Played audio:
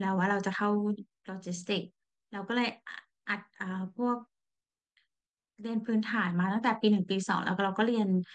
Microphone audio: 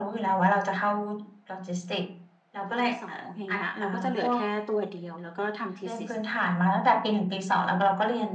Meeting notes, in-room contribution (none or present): present